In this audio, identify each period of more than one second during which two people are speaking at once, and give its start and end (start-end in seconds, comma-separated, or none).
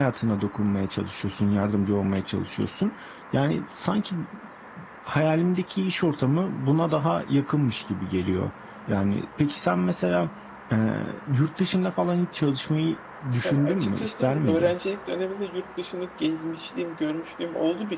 13.4-14.7